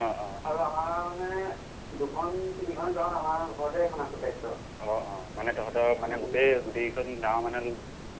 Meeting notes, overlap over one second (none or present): none